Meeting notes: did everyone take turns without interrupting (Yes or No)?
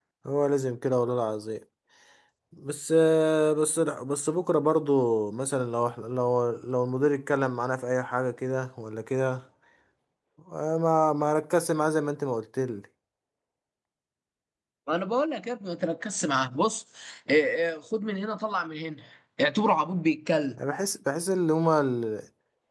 Yes